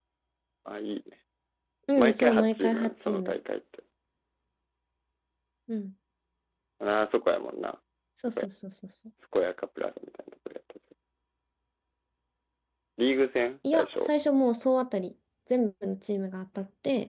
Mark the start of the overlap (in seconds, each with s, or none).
2.0 s